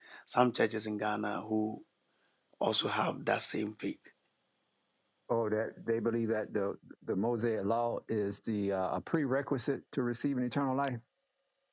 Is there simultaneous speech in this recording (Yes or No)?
No